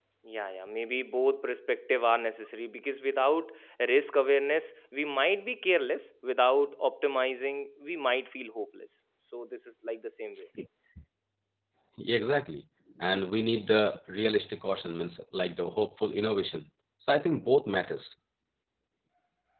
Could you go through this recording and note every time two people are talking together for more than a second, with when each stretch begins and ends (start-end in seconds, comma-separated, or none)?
none